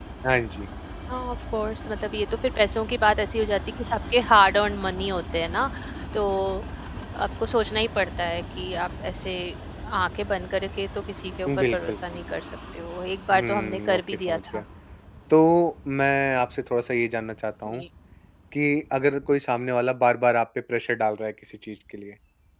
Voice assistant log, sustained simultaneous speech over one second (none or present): present